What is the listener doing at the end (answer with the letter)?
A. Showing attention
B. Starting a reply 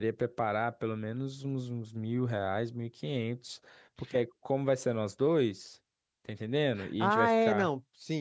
B